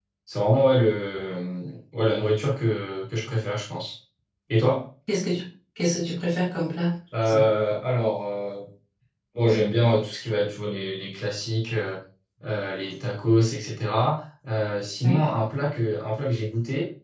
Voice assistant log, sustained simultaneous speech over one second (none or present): none